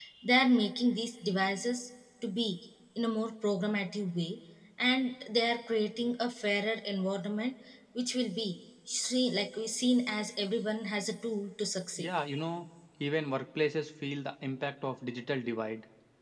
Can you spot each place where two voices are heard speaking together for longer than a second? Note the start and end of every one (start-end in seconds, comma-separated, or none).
none